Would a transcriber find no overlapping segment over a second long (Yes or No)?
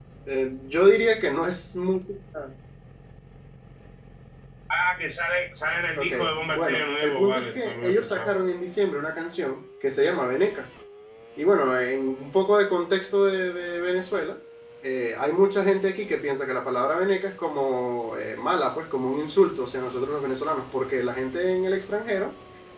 No